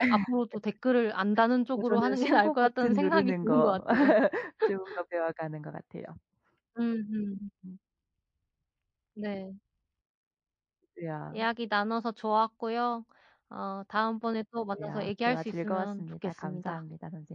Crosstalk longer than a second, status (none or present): present